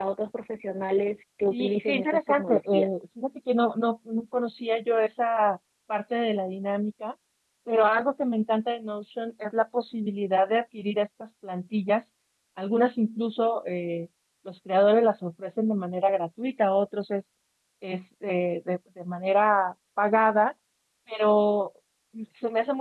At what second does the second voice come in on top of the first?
1.5 s

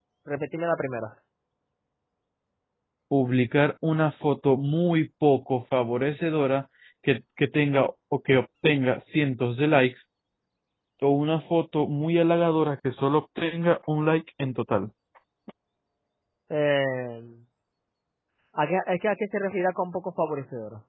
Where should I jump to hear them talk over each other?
none

